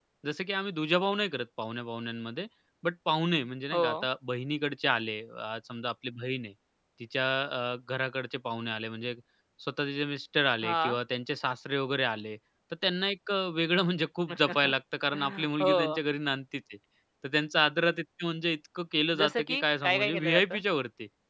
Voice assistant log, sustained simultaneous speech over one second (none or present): present